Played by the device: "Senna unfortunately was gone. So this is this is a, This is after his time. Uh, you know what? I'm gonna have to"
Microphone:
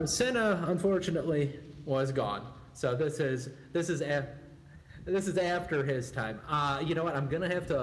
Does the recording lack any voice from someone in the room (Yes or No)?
Yes